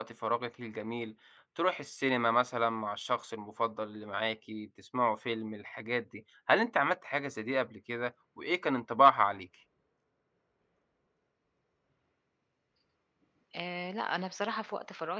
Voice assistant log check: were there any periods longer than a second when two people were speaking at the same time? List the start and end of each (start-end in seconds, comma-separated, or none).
none